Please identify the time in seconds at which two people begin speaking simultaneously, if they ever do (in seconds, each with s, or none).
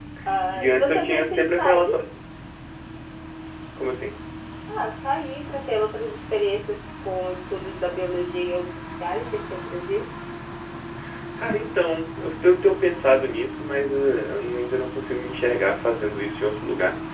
0.5 s